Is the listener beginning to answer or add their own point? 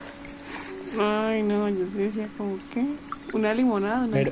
Yes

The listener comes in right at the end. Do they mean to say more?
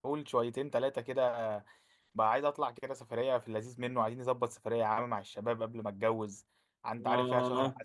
Yes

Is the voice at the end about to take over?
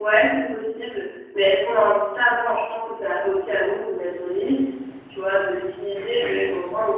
No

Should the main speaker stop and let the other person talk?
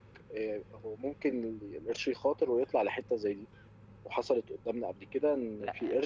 No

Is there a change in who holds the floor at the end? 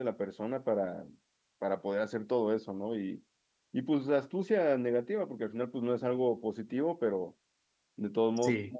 No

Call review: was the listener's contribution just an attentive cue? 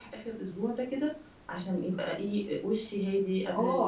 No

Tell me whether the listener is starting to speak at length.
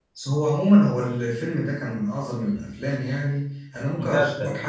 No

